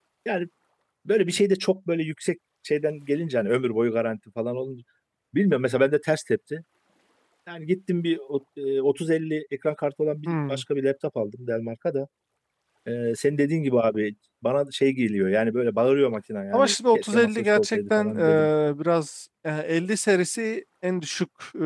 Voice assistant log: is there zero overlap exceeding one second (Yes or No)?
No